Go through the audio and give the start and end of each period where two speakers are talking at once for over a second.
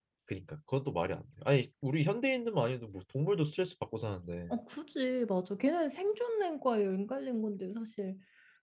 none

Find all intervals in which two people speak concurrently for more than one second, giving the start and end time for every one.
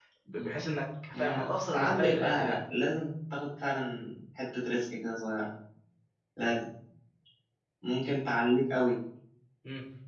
1.1-2.6

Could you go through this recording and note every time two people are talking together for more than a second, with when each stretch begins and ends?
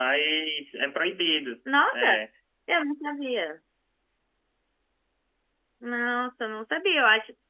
none

